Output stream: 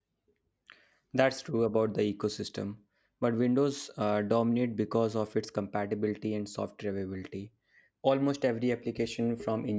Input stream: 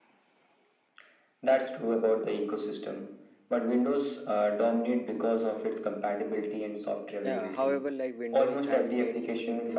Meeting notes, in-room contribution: present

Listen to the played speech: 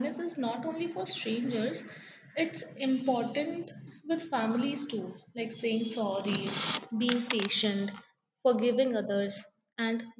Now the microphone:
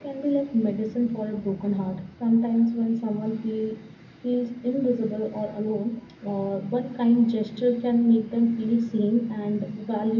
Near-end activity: present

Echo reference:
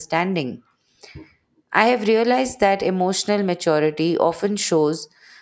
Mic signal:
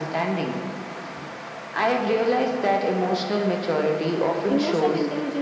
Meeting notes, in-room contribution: present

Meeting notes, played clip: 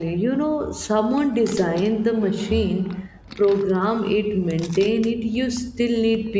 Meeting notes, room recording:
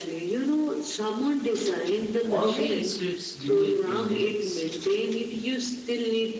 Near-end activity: present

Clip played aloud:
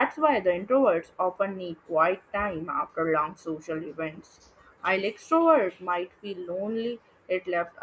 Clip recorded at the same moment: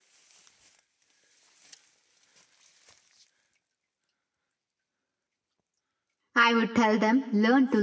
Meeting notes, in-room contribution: present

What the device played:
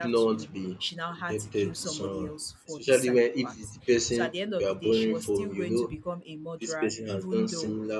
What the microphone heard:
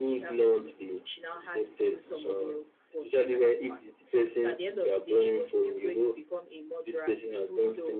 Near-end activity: none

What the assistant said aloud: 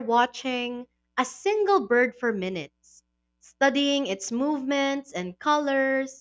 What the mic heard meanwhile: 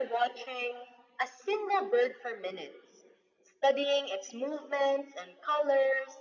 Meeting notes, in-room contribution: none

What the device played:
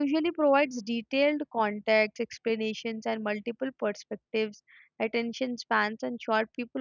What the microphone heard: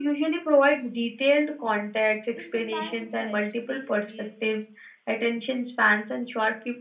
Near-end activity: present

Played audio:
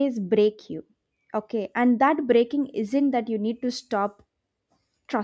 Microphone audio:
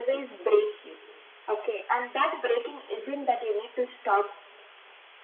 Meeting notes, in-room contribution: none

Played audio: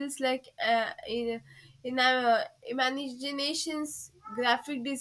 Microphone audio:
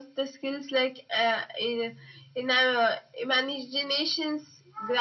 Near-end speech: none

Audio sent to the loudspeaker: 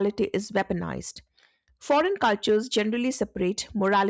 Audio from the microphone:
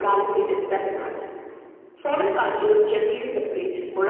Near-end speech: none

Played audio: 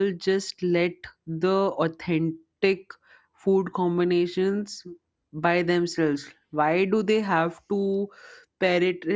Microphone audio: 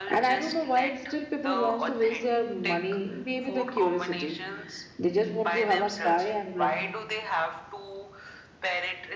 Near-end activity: present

